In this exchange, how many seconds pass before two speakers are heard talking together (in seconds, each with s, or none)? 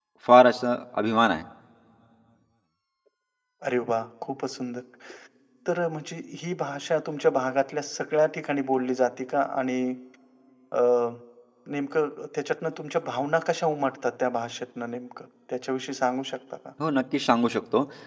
none